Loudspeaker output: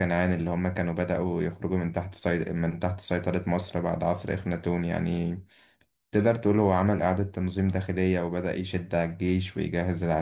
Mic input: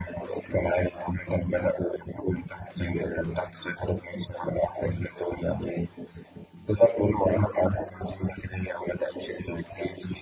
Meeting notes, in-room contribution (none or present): none